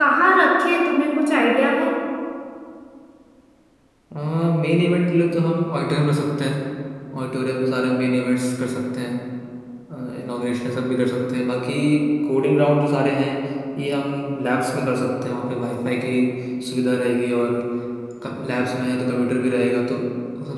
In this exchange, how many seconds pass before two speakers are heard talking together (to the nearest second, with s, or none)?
none